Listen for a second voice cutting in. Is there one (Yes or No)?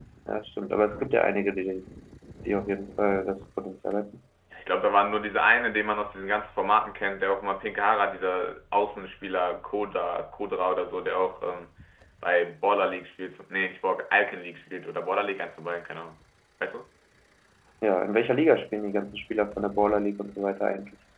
No